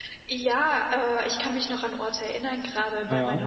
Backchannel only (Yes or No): Yes